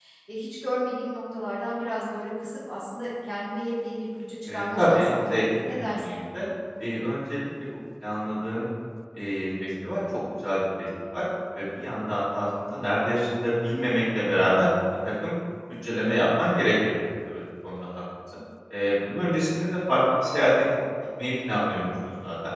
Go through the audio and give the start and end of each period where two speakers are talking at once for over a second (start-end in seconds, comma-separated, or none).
4.5-6.0